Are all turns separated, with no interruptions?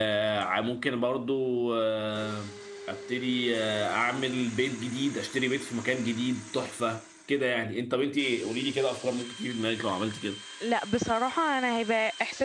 Yes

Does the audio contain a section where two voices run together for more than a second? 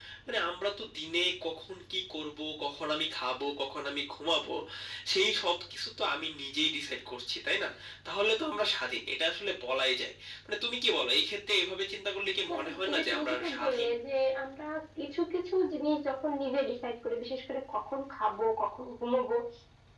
Yes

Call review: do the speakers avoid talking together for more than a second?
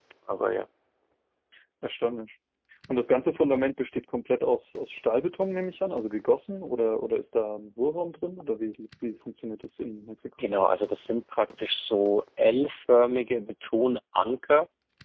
Yes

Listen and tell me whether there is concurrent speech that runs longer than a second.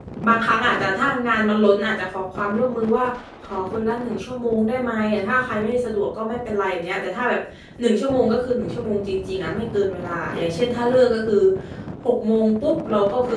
No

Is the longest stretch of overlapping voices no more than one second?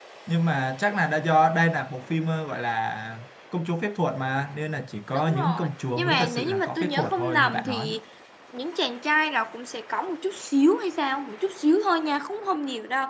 No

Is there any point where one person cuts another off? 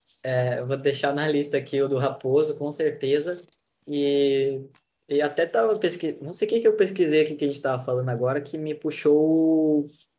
No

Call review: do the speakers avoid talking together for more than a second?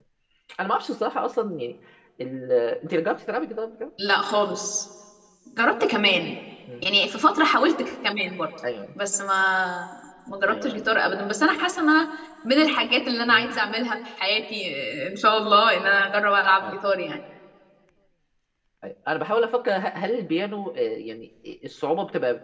Yes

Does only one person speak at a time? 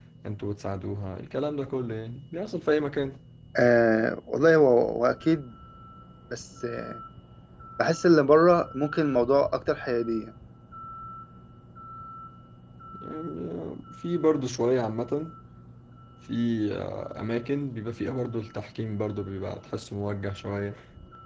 Yes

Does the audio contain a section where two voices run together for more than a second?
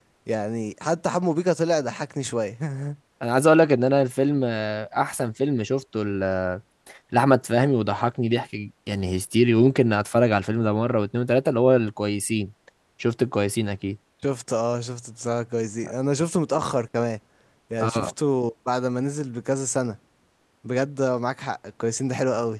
No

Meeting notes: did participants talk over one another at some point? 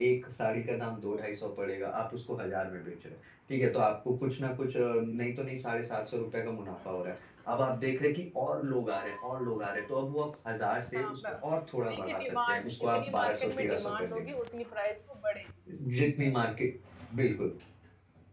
Yes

